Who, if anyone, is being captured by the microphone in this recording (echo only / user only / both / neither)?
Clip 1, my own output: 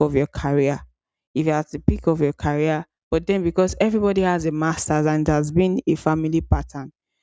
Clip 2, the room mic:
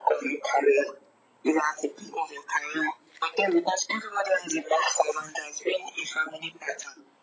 echo only